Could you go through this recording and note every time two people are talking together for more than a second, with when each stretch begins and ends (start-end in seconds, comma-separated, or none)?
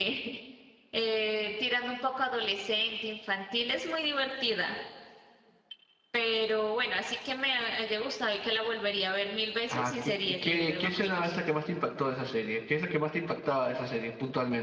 9.7-11.3